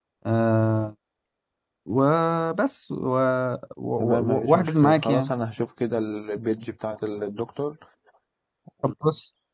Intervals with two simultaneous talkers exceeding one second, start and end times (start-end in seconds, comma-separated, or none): 4.0-5.3